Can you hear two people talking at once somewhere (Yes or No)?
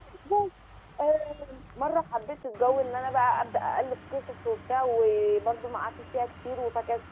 No